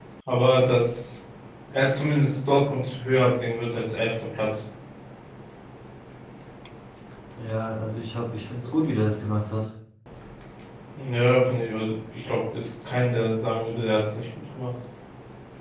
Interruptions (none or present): none